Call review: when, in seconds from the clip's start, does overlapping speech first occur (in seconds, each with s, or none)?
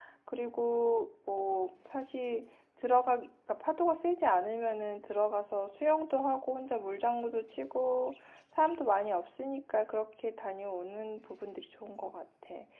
none